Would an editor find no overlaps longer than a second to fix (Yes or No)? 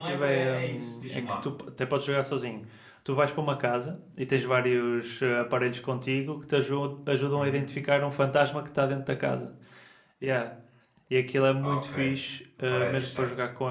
No